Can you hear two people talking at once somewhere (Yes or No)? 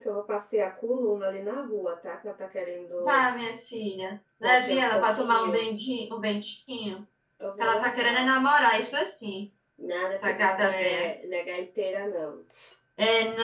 Yes